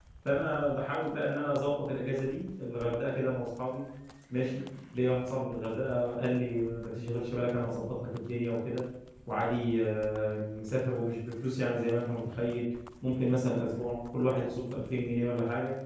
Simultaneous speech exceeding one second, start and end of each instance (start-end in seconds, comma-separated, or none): none